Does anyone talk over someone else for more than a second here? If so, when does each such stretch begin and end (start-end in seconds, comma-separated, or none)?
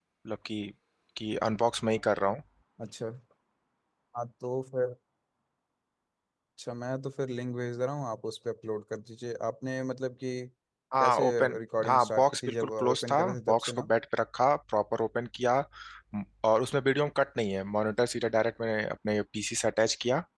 11.0-13.9